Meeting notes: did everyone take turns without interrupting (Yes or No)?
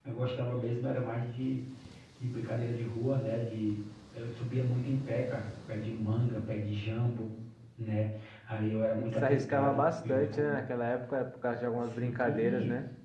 No